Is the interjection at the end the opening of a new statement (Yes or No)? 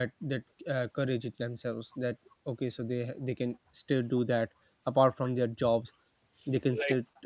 No